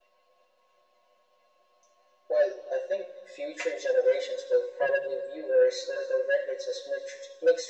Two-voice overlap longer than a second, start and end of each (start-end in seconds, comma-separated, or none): none